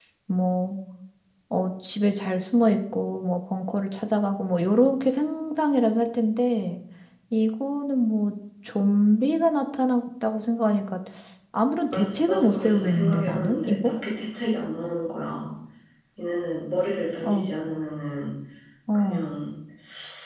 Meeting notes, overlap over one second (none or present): present